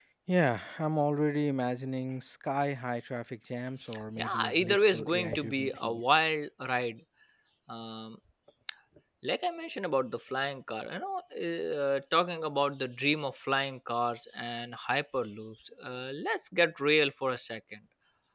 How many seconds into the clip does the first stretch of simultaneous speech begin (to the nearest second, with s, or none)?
4 s